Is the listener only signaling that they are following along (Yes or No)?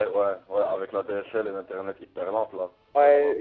No